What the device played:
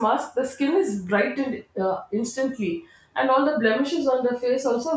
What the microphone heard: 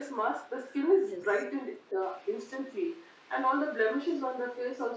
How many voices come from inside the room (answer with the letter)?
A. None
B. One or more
B